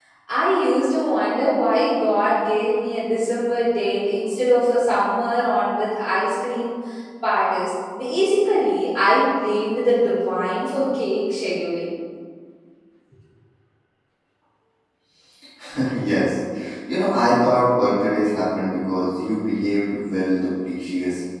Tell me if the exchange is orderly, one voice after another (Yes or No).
Yes